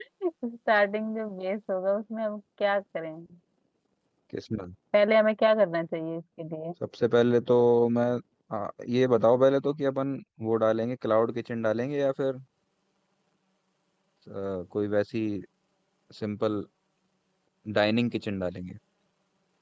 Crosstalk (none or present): none